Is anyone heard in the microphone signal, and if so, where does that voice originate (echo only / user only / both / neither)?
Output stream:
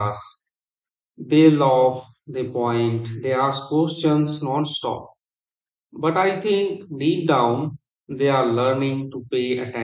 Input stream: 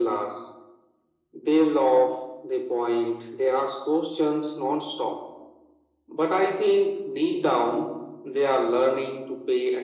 echo only